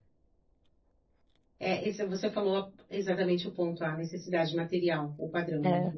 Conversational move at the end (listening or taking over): listening